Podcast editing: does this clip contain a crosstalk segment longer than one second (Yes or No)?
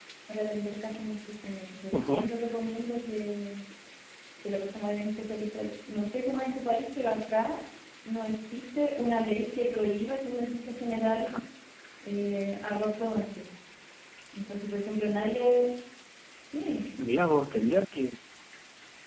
No